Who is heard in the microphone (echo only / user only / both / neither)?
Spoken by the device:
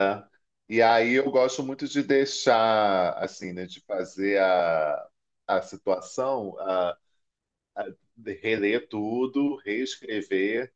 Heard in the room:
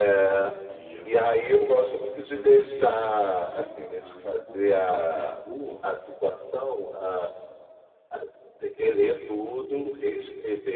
both